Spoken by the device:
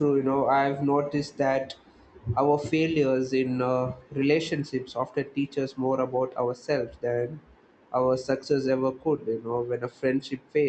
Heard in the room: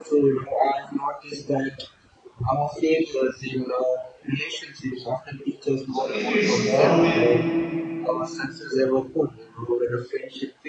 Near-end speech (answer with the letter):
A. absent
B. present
B